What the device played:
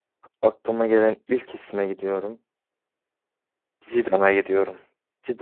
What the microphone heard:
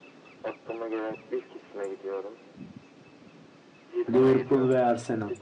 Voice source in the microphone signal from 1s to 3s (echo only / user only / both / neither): echo only